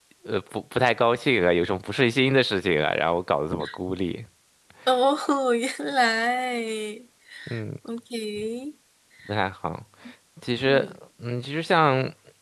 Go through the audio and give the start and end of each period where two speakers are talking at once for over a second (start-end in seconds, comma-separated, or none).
none